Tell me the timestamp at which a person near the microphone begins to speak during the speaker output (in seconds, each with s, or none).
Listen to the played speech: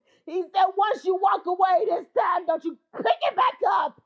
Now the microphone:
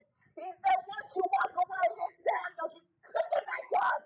none